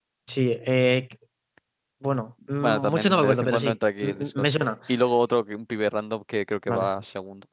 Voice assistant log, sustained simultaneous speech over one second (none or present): present